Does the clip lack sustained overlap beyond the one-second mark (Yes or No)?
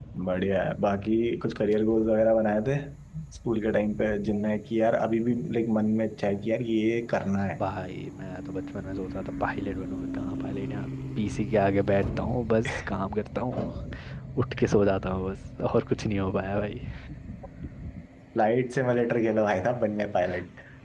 Yes